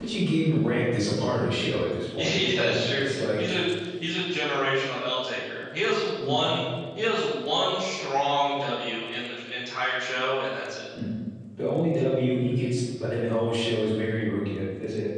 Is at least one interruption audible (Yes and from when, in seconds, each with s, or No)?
Yes, from 2.2 s